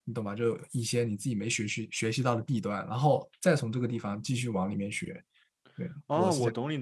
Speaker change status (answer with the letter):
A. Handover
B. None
A